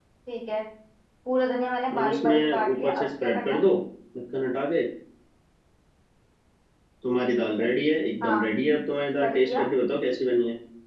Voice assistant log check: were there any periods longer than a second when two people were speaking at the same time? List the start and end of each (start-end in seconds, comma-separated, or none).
2.0-3.6